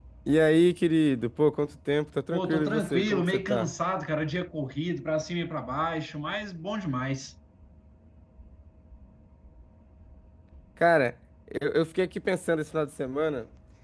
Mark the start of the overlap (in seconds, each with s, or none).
2.3 s